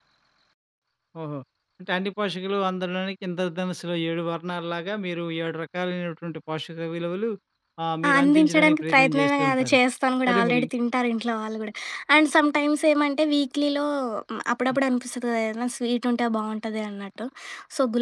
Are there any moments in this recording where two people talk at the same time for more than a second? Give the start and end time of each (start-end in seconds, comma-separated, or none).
8.1-9.8